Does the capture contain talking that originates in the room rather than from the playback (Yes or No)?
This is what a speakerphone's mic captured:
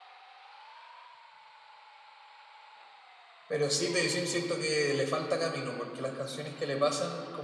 Yes